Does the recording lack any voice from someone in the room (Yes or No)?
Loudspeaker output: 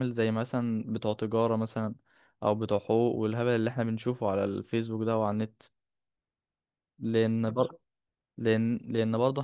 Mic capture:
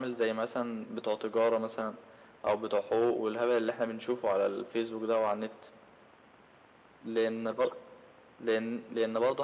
Yes